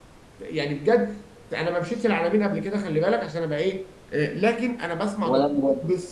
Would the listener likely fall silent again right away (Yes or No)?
Yes